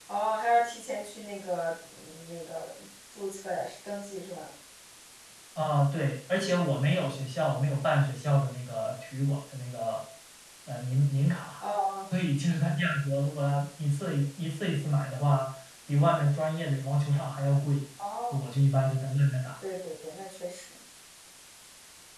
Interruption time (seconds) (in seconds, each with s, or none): none